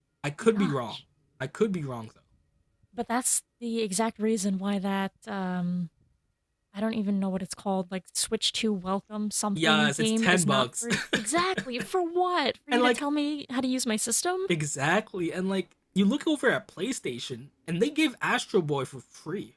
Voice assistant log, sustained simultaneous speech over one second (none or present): present